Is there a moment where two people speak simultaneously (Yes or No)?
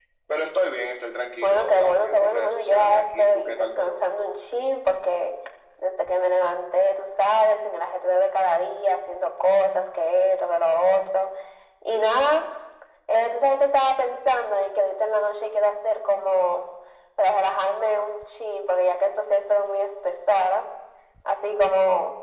Yes